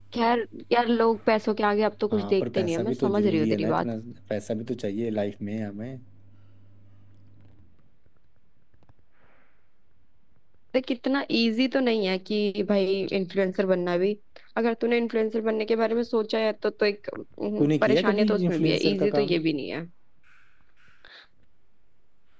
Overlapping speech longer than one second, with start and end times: 2.1-3.9, 17.6-19.4

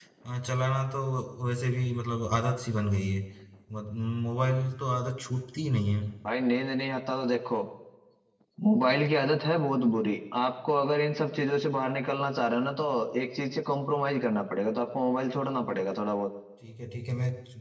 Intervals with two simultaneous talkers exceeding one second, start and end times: none

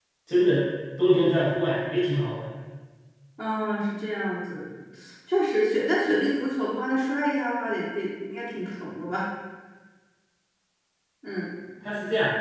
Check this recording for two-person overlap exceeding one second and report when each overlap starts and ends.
none

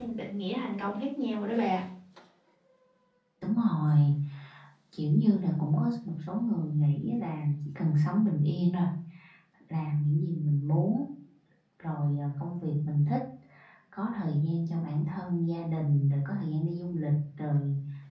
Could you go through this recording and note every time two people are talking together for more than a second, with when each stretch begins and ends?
none

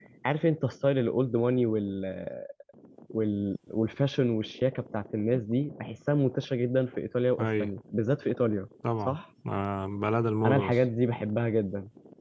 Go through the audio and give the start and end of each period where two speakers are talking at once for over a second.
none

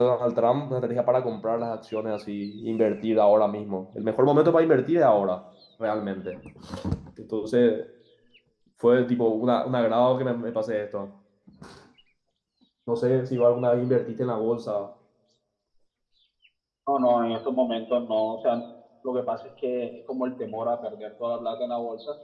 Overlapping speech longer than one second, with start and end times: none

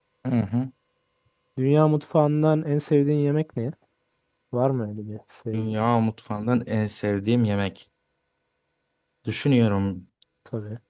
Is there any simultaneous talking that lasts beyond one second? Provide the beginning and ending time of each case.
none

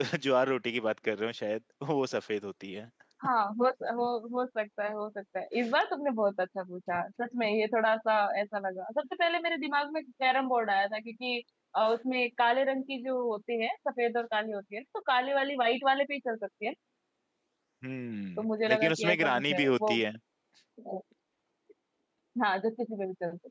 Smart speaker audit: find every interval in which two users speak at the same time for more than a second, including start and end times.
18.4-20.0

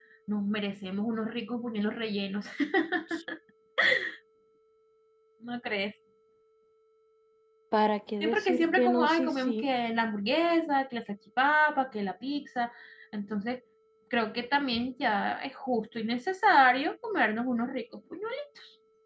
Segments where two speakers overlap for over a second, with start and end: 8.2-9.7

